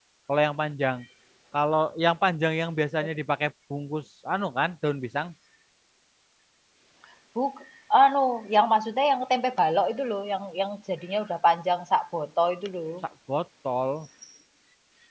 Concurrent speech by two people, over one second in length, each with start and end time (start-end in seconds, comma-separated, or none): none